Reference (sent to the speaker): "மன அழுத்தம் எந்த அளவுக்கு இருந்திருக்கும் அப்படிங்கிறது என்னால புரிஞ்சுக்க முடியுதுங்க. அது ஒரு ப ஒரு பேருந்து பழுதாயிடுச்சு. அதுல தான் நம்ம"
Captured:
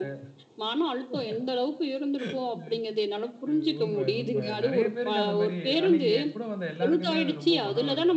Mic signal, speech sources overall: both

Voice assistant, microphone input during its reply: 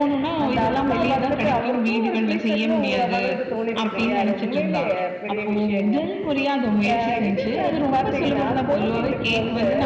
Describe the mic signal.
echo only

